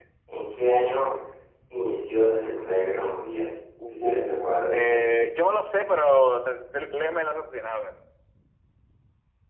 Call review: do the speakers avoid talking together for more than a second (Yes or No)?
No